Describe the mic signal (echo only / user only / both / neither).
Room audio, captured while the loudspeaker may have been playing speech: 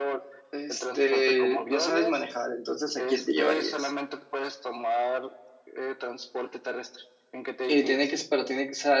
both